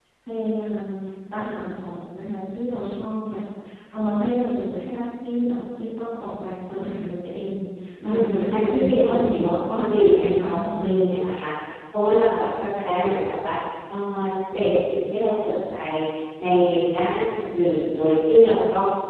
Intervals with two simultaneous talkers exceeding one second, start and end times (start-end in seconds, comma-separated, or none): 8.1-10.8